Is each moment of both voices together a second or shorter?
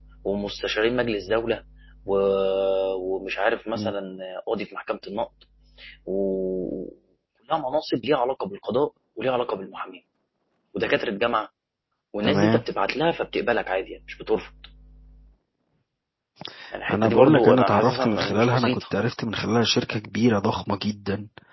No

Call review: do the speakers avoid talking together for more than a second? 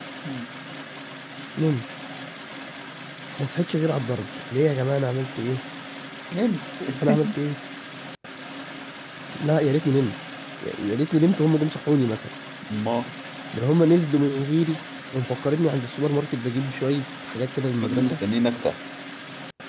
Yes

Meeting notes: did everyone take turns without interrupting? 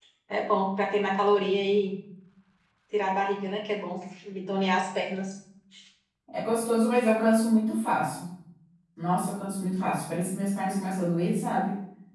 Yes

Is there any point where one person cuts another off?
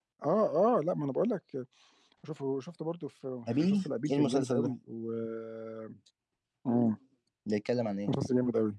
Yes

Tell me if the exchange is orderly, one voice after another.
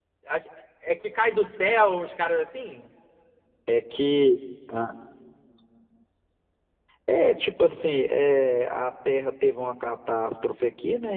Yes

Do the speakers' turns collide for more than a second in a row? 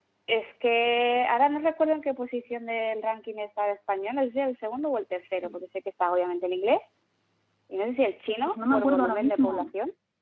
Yes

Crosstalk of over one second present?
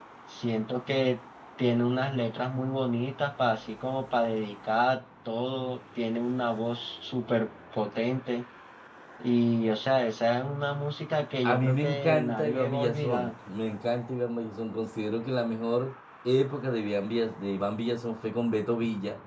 Yes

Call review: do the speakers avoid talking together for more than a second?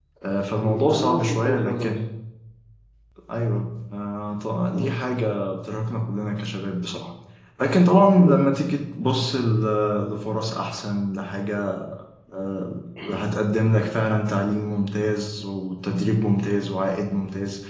No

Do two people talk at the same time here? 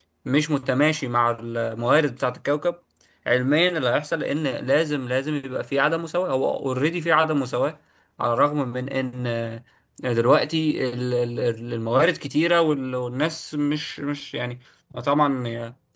No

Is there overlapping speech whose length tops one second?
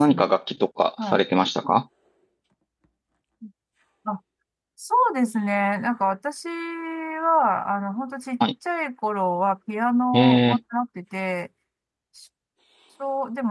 No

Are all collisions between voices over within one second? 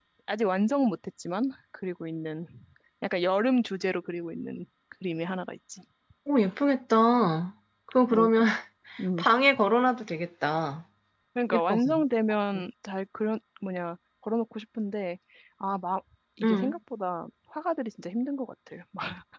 Yes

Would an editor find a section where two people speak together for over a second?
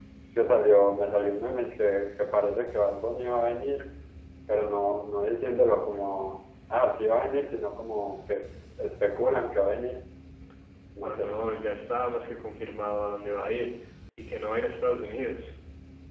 No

